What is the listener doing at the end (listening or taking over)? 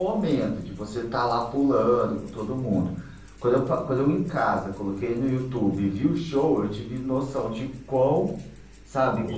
listening